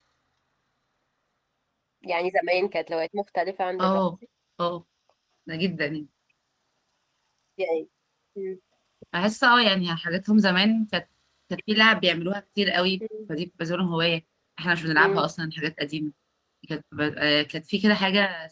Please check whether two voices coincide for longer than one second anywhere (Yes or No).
No